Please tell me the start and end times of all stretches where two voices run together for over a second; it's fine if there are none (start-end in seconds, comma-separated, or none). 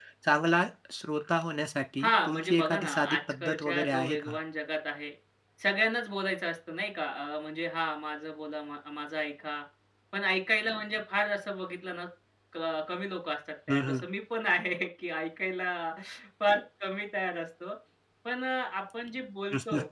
2.0-4.3